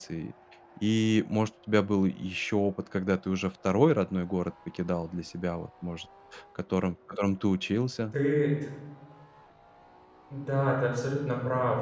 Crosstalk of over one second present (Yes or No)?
No